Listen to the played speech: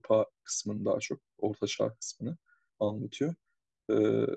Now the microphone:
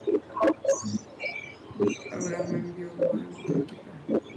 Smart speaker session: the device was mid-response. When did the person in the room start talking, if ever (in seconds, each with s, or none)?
2.1 s